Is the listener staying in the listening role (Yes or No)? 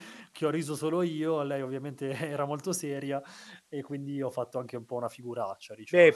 No